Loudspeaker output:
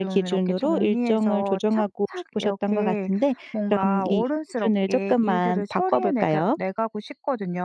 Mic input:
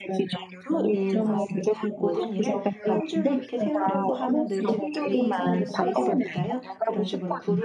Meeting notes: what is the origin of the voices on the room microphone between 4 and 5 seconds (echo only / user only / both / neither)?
both